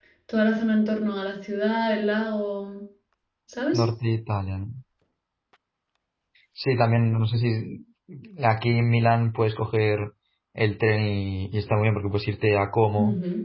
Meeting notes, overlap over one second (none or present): none